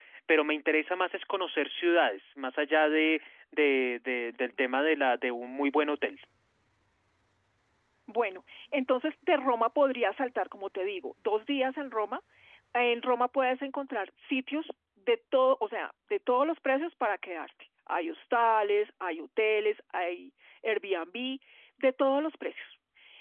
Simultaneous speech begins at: none

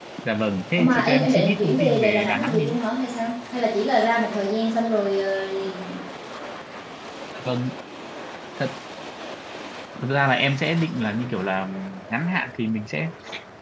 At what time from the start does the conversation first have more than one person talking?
0.8 s

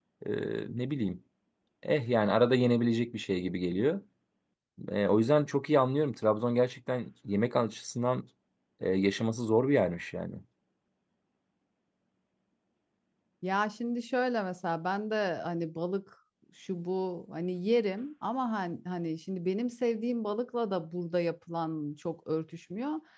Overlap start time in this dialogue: none

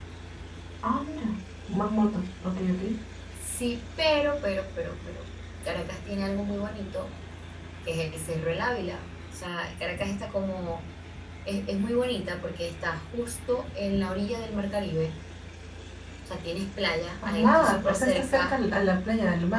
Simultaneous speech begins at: 17.2 s

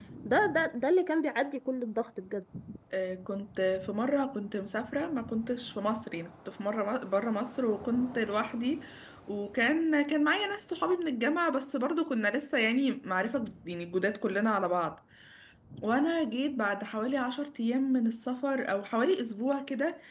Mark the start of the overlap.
none

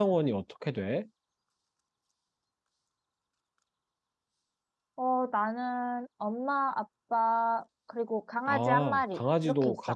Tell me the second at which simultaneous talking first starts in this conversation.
8.5 s

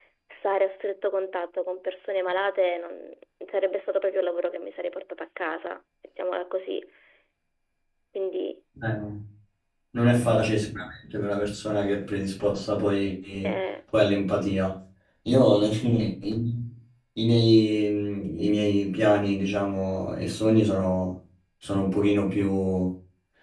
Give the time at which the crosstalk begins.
none

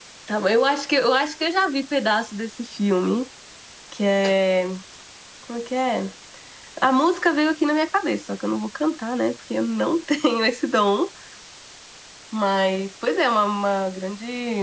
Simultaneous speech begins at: none

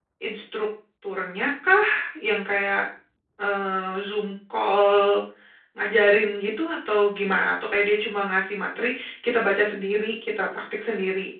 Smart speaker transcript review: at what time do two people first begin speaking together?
none

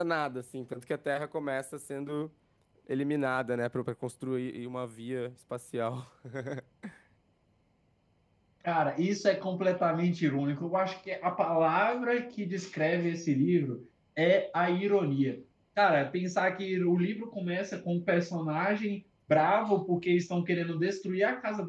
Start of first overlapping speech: none

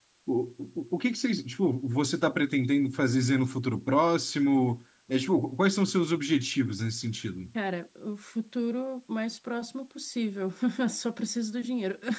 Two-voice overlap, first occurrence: none

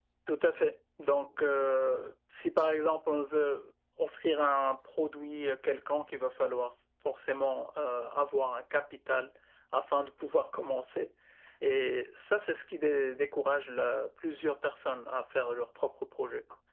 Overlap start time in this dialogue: none

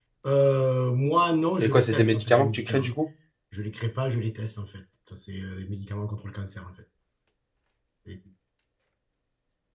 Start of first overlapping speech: 1.6 s

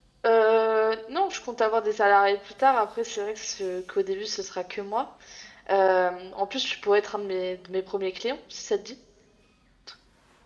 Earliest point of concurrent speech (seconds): none

